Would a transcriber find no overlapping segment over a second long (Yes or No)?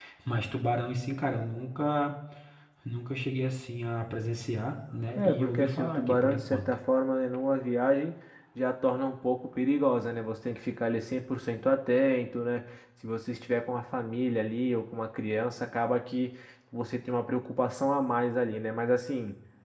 No